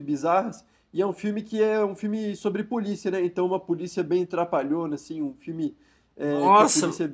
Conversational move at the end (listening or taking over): listening